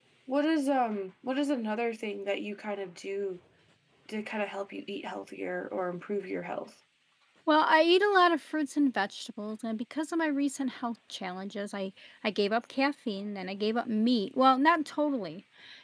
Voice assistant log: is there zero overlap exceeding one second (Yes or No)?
Yes